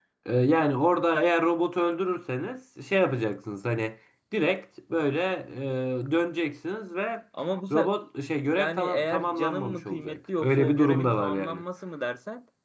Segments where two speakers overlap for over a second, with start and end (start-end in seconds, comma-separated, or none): 8.5-11.6